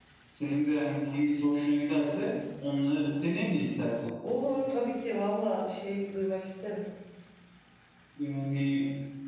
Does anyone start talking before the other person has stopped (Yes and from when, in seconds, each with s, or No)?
No